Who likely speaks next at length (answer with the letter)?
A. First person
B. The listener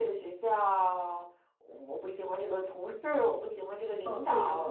B